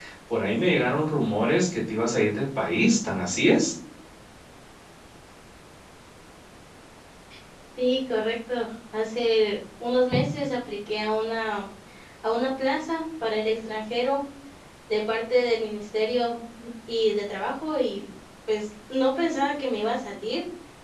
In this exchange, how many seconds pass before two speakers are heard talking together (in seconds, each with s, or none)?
none